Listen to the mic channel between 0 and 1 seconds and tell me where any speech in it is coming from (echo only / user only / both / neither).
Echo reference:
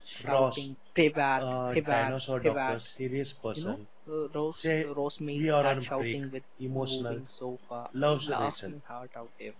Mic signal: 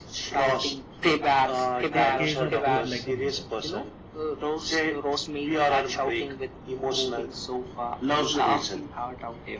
echo only